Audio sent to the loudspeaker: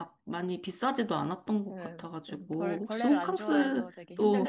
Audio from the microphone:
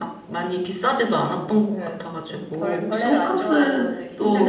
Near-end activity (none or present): none